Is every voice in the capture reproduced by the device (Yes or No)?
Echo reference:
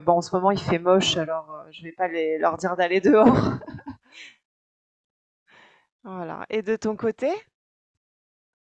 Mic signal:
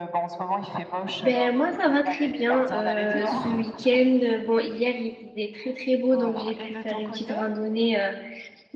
No